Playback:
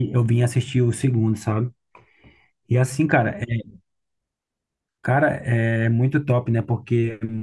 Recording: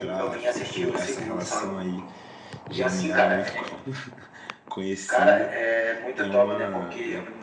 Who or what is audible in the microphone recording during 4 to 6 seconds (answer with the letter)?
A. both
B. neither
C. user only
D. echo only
A